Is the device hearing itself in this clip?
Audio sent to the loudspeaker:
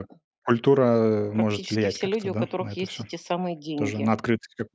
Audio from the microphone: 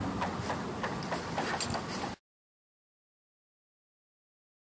No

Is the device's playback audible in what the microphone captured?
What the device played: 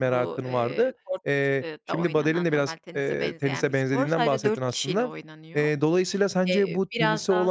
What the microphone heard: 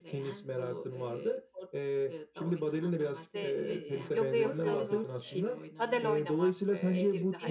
Yes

